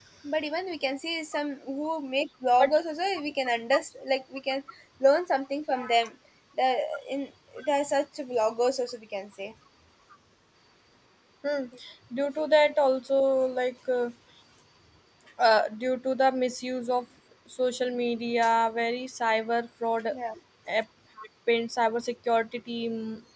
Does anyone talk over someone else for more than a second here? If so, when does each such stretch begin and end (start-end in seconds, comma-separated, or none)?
none